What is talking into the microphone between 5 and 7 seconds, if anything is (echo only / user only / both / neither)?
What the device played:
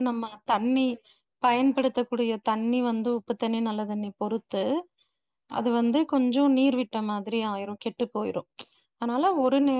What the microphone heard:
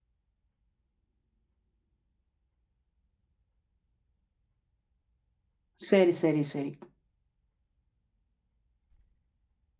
user only